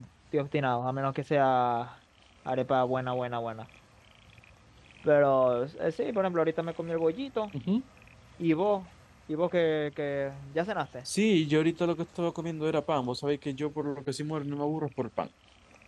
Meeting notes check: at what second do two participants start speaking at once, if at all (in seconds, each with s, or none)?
none